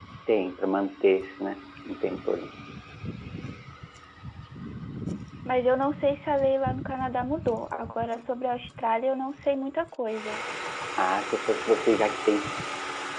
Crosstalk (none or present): none